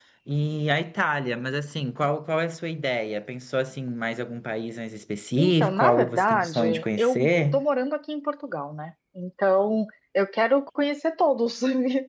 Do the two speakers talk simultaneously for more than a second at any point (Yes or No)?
Yes